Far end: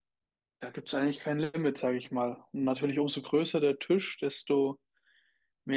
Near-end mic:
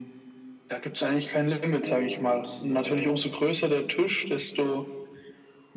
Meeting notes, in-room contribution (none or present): present